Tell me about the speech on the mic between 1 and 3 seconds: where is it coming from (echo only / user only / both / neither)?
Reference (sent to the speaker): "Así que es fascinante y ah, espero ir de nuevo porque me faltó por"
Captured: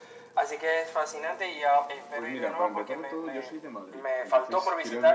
both